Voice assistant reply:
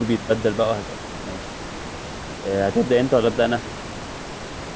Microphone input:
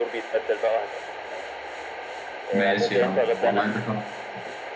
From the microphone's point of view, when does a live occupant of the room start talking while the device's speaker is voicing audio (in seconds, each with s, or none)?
2.5 s